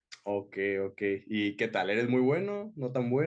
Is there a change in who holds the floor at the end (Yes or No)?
Yes